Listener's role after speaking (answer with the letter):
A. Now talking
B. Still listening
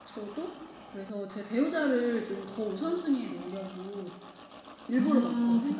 A